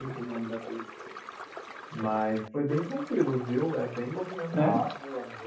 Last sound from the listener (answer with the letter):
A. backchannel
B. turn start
A